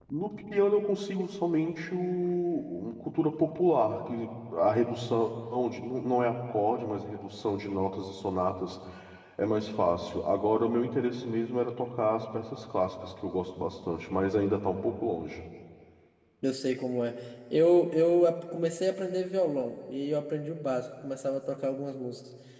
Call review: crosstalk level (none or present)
none